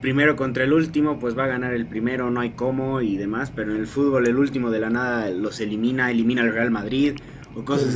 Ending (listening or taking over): taking over